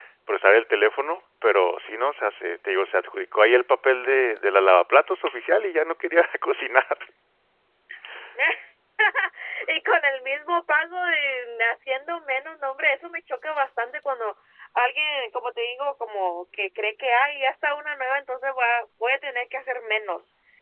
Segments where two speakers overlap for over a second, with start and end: none

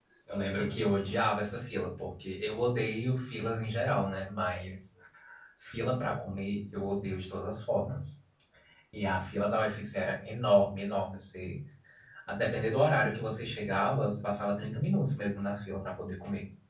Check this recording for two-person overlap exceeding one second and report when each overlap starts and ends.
none

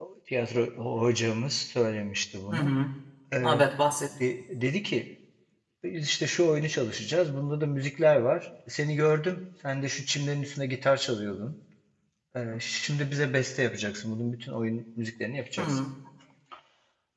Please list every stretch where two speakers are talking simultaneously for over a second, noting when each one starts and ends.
none

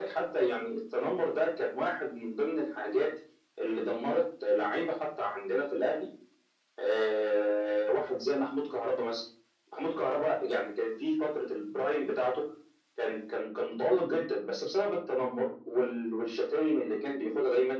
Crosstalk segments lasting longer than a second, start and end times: none

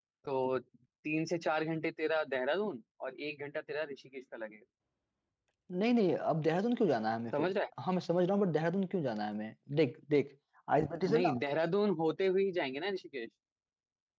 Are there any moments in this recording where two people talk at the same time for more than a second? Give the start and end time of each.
none

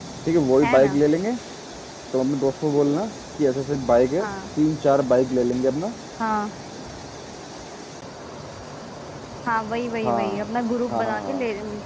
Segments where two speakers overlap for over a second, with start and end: none

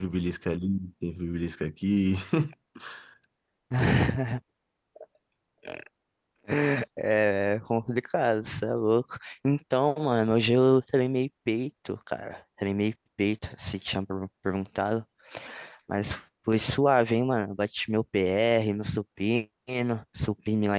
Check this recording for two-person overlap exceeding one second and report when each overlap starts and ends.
none

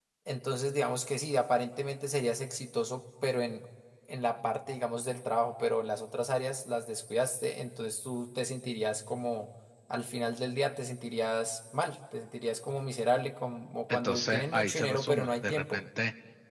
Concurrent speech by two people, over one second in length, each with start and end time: 13.9-15.8

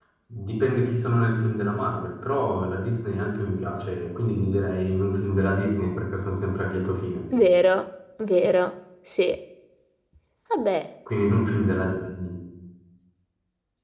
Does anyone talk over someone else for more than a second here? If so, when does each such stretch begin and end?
none

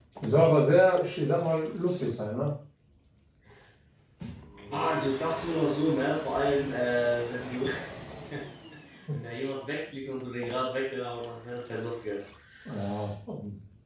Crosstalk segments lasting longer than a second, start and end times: none

